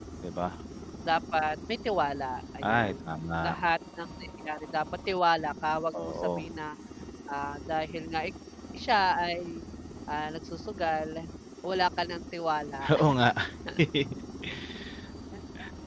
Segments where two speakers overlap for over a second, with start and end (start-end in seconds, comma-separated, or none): none